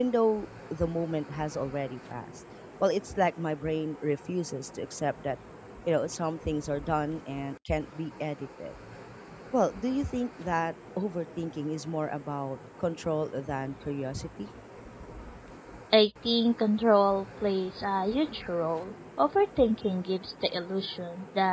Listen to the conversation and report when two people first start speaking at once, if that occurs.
none

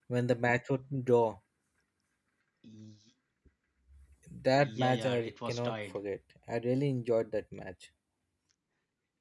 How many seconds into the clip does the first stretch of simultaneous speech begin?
5 s

